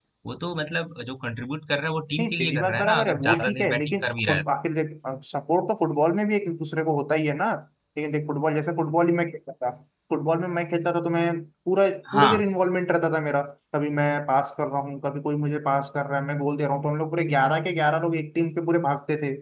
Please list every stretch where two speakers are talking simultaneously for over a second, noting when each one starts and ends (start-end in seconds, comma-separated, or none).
2.2-4.4